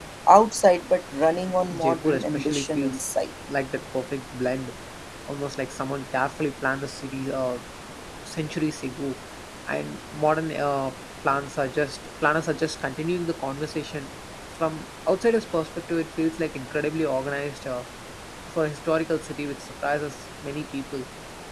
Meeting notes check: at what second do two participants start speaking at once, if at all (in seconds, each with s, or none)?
1.7 s